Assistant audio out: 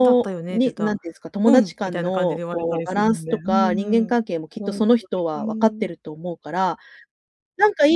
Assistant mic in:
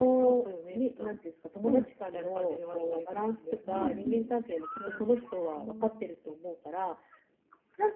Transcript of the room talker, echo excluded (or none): うんうん。